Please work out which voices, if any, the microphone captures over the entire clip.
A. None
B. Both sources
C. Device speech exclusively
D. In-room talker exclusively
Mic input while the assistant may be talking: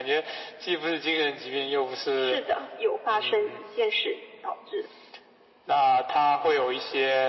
C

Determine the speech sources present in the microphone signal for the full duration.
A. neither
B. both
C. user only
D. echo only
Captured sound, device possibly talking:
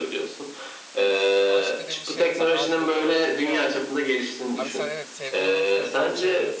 B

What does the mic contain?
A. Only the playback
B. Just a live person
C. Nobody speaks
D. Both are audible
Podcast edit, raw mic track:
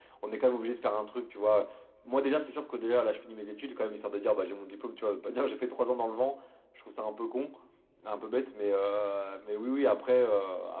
A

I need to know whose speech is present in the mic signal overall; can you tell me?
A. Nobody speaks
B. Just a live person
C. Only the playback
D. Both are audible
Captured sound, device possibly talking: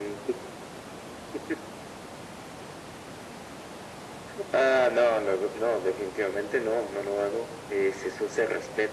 C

